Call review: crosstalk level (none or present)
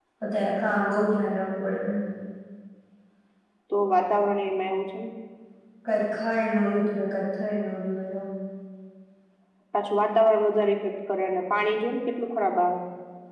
none